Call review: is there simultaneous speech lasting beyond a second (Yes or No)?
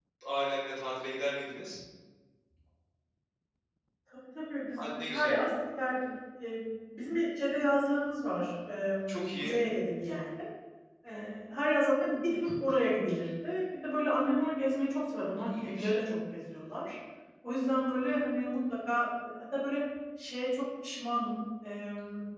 No